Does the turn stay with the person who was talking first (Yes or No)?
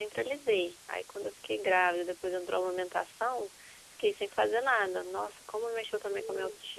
No